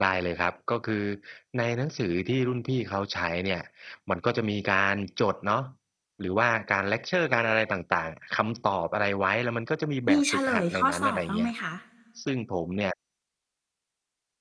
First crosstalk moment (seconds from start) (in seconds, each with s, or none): 10.1 s